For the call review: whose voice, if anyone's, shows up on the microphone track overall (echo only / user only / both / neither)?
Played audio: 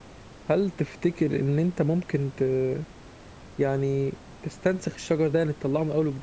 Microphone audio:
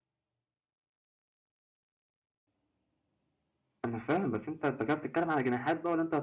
user only